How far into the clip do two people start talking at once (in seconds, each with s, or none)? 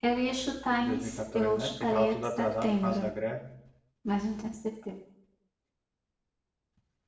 0.8 s